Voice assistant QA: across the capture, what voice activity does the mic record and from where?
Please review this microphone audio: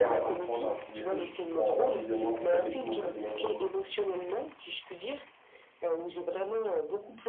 both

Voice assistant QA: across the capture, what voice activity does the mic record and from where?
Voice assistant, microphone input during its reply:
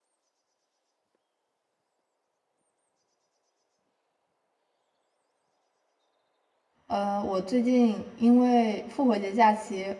user only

